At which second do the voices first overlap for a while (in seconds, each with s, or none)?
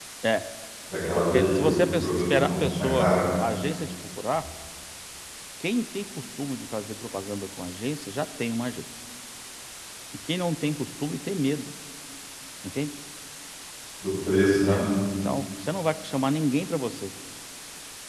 1.1 s